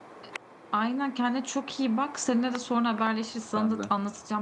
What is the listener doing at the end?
listening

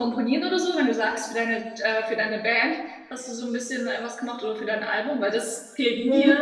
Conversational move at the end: taking over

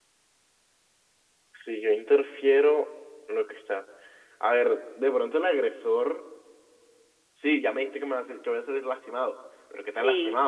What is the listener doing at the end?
listening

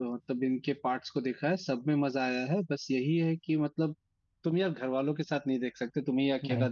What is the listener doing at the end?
listening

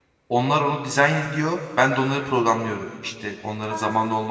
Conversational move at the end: listening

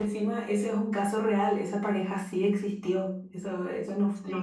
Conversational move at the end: listening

